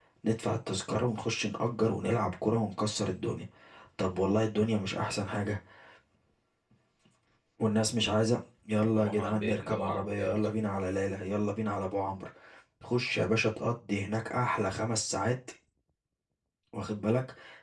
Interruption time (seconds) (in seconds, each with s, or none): 8.9 s